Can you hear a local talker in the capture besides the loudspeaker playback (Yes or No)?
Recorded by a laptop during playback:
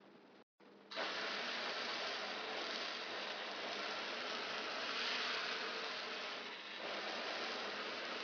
No